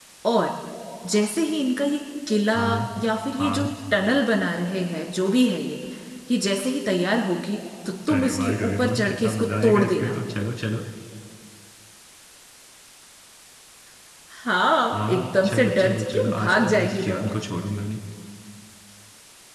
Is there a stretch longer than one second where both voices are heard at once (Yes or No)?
Yes